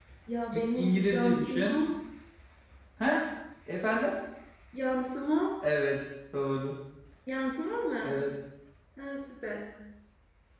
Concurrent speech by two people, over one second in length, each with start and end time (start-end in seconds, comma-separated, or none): 0.5-1.8